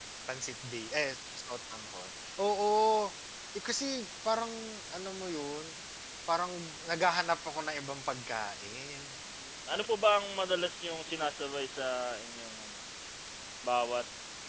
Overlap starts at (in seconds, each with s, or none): none